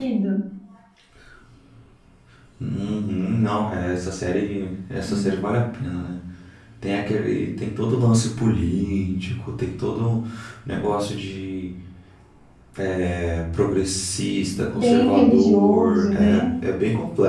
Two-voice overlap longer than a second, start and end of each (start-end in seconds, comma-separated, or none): 14.7-16.5